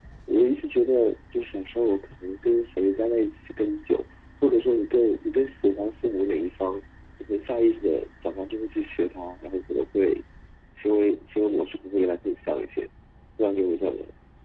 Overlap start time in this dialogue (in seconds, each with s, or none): none